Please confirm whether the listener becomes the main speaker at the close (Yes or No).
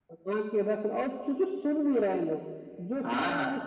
Yes